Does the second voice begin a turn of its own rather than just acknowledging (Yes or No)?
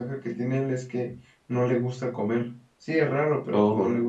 No